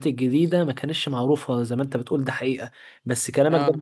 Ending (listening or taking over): listening